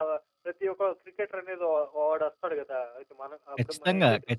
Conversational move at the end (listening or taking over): taking over